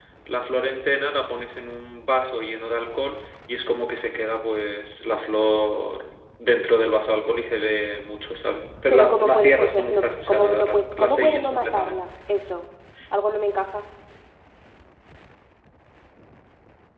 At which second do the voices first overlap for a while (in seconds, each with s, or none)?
8.9 s